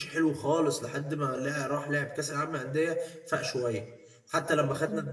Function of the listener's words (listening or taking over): listening